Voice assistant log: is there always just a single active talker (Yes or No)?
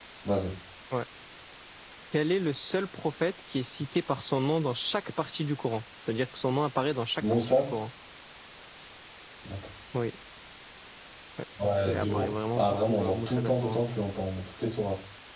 No